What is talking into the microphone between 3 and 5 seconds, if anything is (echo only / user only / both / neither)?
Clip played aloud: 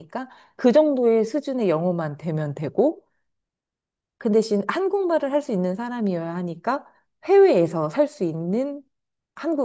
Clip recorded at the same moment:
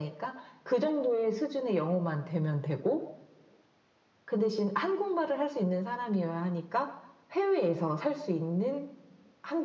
echo only